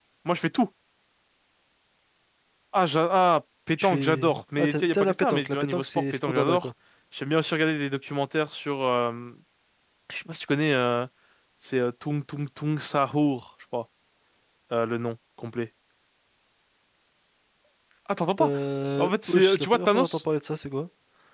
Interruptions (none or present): present